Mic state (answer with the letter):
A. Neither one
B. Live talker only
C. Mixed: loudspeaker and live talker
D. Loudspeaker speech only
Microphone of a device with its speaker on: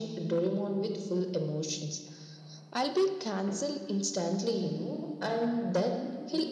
D